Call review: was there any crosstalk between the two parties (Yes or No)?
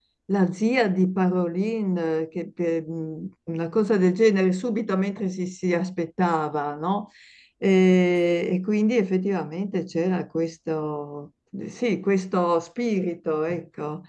No